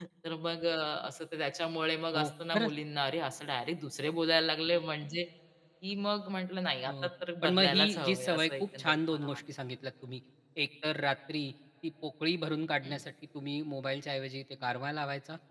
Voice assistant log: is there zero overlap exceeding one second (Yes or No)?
No